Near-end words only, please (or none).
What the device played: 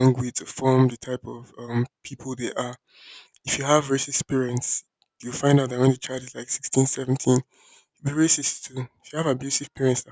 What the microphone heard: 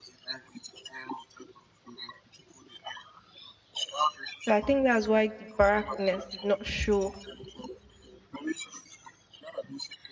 So I think that's why the barrackness did not show.